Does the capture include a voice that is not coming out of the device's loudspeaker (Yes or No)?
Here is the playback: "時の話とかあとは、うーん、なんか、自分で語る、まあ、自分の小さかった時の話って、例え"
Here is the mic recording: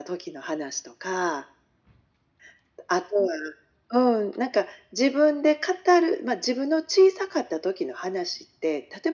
No